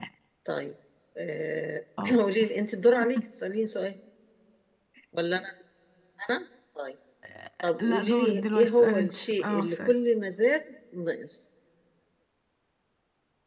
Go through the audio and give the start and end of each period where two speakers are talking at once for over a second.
7.8-9.9

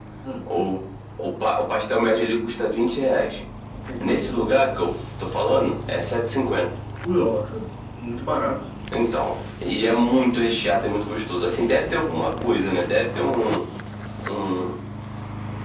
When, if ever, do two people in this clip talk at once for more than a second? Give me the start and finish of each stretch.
none

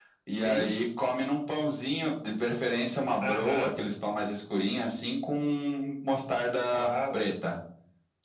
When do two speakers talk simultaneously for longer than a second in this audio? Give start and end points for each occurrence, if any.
none

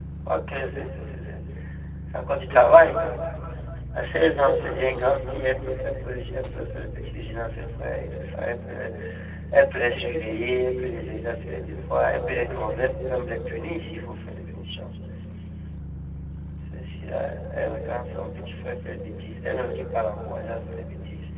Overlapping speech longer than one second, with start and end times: none

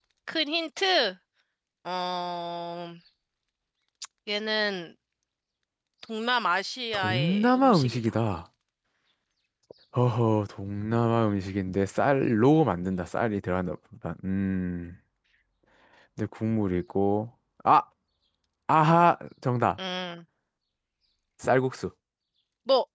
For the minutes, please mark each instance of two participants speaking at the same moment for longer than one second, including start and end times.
6.9-8.2

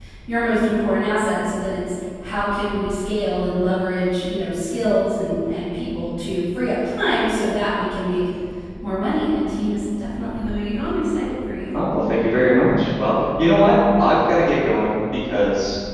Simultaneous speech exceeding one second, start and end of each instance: none

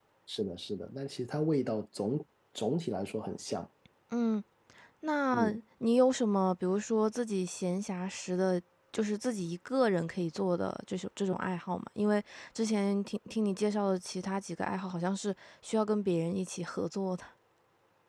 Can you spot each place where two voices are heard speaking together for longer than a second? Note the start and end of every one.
none

